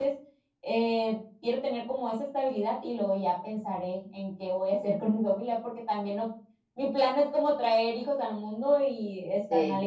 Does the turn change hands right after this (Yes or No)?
Yes